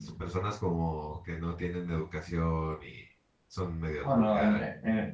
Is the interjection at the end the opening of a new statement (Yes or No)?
Yes